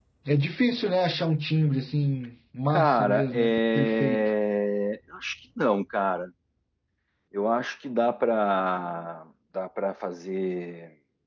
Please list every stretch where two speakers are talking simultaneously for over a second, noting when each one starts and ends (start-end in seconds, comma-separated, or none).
2.7-4.2